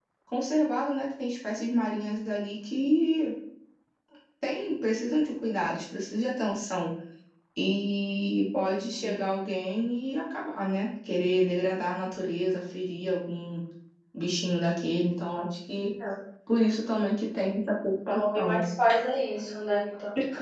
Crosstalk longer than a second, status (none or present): none